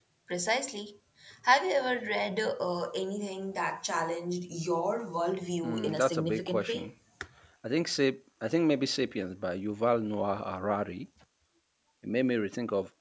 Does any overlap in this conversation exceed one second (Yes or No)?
Yes